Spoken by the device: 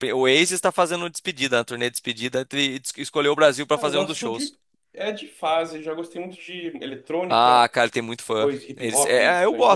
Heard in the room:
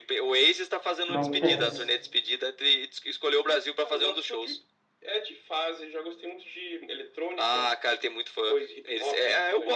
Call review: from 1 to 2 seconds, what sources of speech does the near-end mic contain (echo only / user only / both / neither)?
both